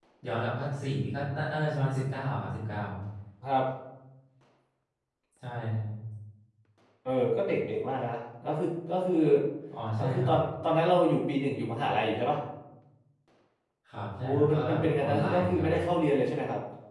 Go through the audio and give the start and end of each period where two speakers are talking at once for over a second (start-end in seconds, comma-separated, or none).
14.2-15.8